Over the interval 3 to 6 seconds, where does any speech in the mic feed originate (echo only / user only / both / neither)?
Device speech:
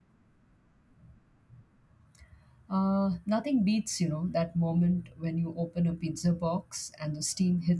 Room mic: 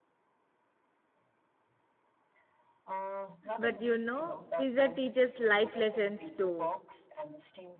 both